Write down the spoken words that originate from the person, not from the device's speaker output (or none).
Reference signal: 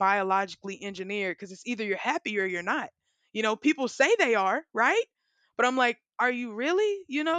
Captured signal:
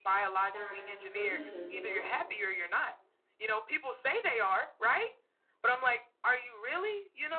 than solutions you know